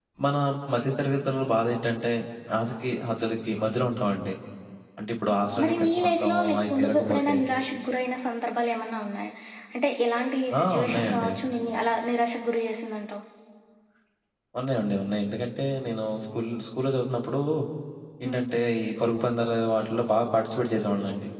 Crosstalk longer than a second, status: present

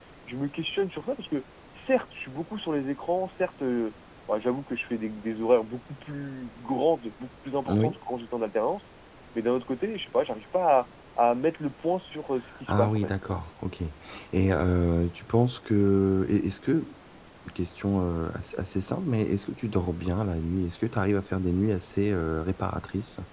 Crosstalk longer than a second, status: none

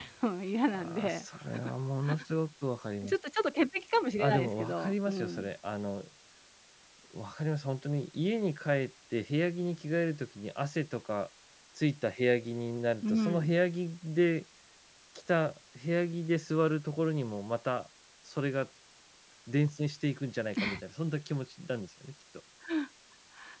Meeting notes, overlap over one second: present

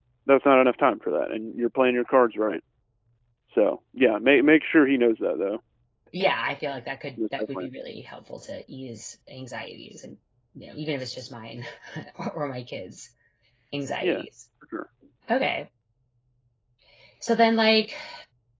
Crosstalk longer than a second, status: none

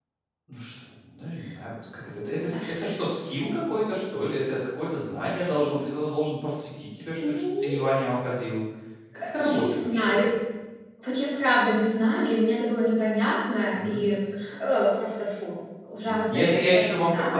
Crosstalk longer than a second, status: present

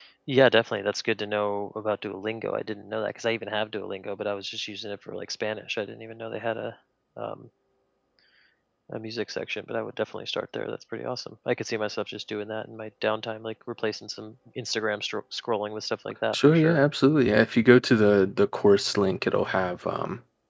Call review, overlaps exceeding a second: none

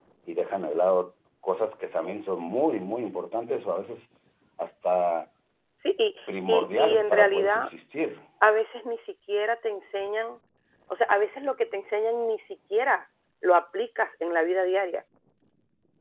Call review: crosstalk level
present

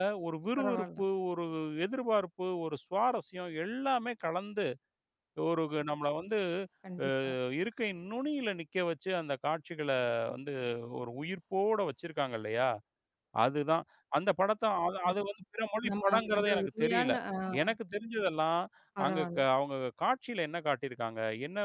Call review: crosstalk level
present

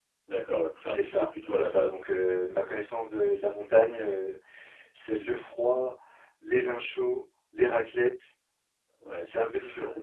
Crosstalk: present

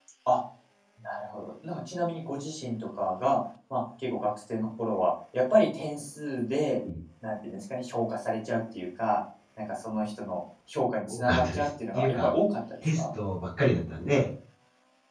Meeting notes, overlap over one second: present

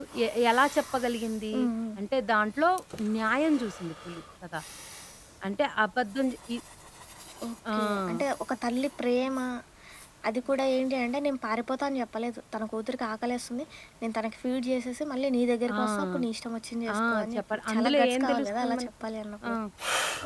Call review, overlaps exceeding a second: present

